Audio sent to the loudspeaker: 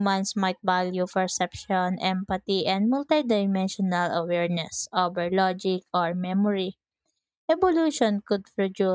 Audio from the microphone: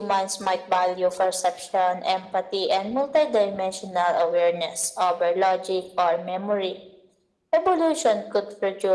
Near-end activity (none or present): none